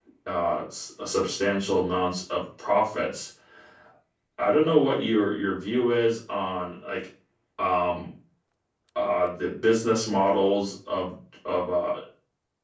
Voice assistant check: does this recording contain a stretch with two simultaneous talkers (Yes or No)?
No